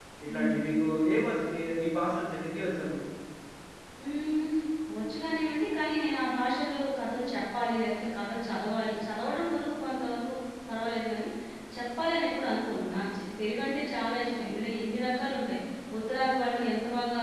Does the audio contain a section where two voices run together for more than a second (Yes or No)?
No